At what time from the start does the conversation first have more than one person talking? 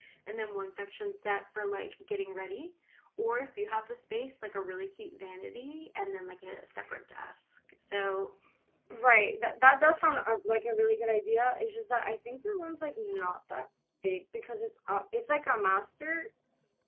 none

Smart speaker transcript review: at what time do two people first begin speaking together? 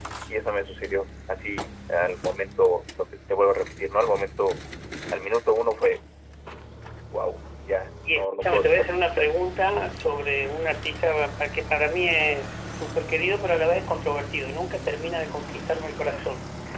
8.1 s

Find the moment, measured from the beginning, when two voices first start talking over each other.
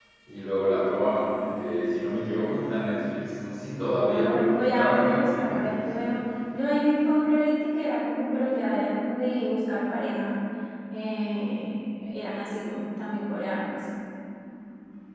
4.0 s

